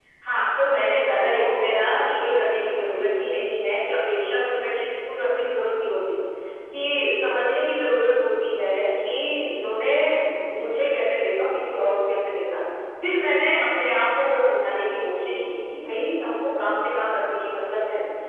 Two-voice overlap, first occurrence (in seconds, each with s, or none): 1.3 s